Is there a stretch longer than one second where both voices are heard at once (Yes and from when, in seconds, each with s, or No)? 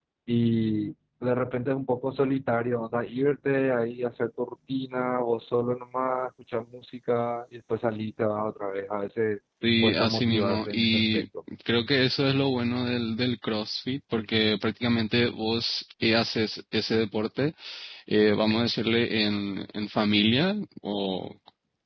Yes, from 9.6 s